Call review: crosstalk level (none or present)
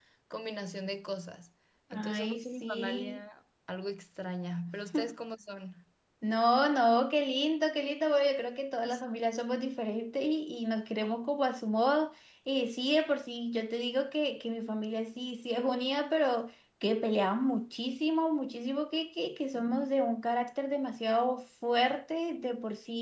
present